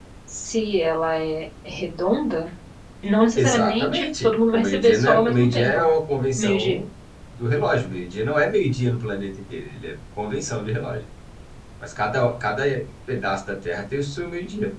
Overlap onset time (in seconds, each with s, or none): 3.4 s